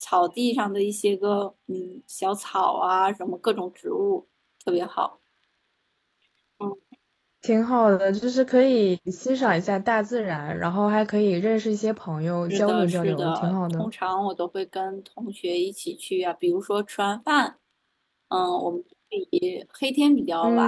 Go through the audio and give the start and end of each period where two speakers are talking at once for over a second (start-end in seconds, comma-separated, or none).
12.5-13.9